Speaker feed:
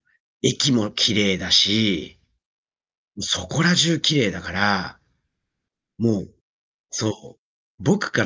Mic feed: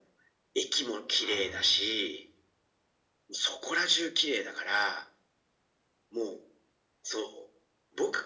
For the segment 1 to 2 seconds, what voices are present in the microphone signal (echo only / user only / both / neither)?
both